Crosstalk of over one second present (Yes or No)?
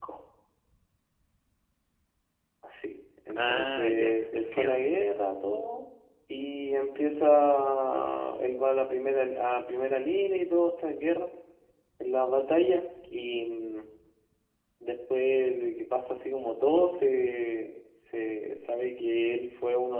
Yes